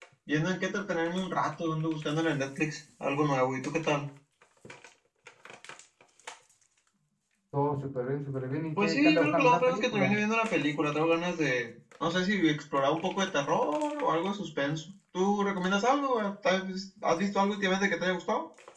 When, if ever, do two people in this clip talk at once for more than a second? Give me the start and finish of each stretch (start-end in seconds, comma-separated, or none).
8.8-10.1